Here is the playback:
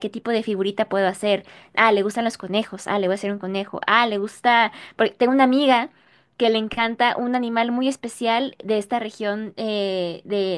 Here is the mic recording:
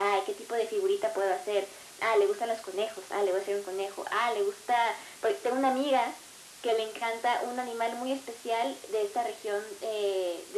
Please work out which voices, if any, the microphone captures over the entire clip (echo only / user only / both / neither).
echo only